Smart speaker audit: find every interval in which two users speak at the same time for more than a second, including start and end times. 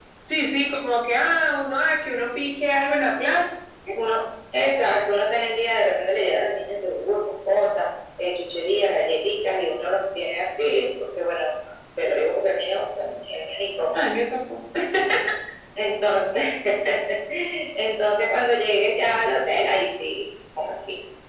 none

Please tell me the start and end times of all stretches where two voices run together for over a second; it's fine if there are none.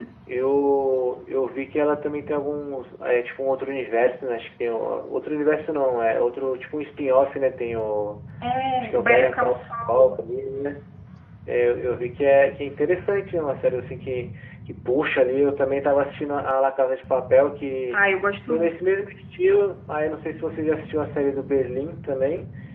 8.8-10.1

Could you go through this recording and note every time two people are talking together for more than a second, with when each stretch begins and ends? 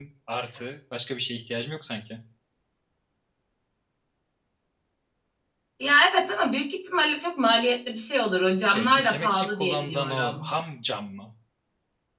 8.7-10.5

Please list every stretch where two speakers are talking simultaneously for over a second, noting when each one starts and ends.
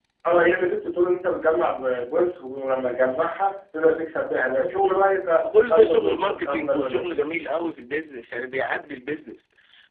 5.7-7.2

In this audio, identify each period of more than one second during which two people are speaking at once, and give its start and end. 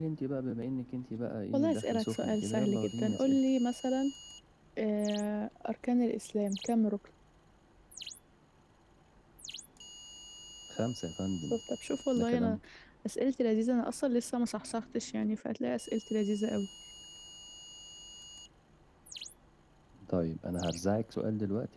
1.5-3.4

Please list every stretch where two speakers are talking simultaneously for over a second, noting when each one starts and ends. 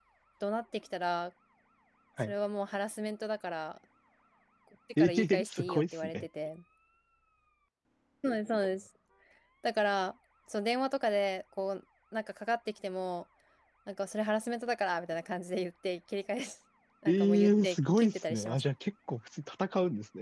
5.0-6.2, 17.1-18.6

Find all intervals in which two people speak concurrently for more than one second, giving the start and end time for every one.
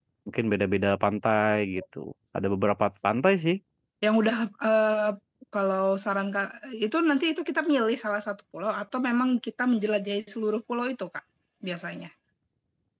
none

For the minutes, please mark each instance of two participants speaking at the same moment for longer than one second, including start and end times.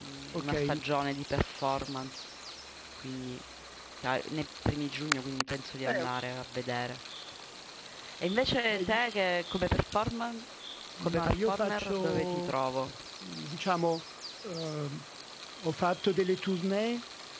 11.0-12.5

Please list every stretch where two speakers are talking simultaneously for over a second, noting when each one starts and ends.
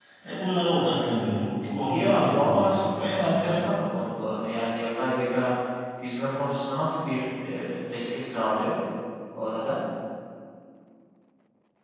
1.9-3.6

